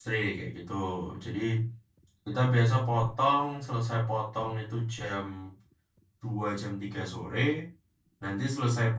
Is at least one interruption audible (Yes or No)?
No